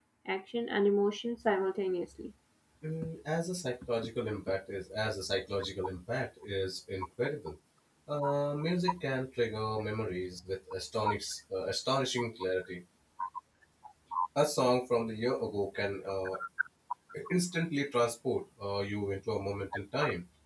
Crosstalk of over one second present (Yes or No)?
No